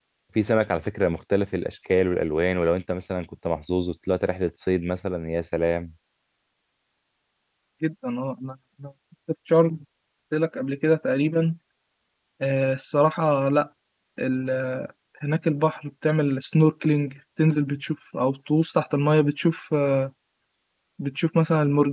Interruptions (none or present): none